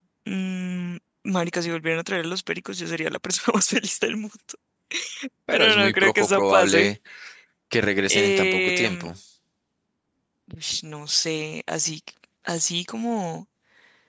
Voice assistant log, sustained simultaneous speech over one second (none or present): present